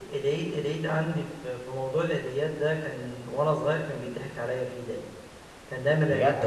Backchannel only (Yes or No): Yes